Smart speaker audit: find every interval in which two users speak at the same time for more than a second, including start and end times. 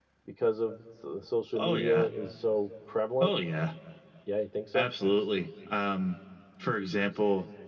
none

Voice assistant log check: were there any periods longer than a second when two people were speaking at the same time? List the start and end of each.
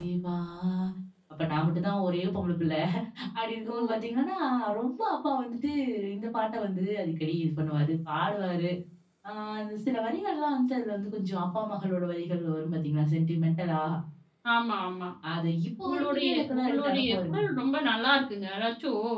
15.8-17.4

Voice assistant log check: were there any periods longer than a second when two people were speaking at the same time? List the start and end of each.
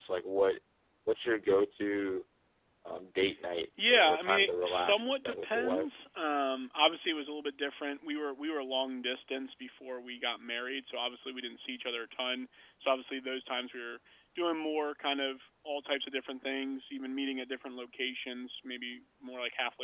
3.9-5.9

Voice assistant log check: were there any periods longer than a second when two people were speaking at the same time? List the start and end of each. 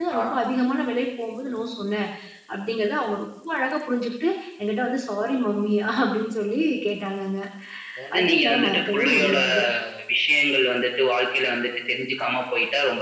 8.2-9.4

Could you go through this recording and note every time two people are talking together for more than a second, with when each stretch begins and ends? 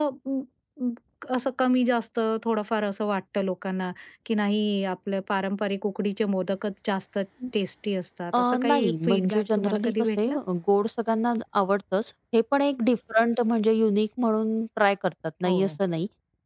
8.3-10.3

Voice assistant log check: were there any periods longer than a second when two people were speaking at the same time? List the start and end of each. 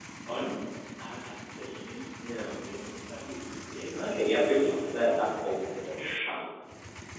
3.9-5.2

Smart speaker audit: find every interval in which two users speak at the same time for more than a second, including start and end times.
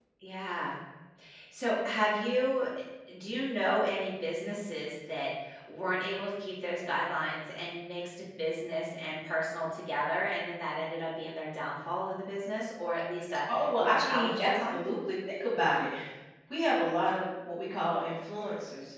13.5-14.8

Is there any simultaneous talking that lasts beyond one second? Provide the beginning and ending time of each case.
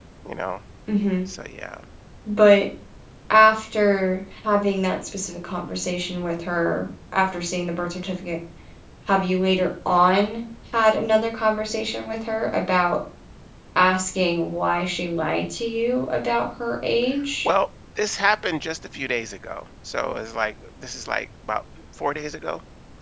none

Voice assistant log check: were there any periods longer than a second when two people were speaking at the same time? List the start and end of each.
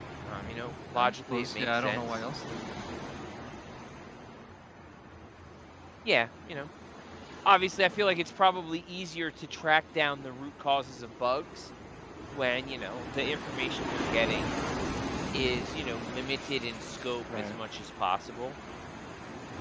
0.9-2.2

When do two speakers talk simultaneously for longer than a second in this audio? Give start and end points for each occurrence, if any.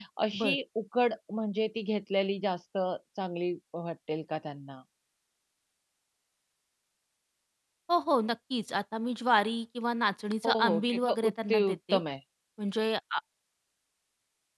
10.4-12.0

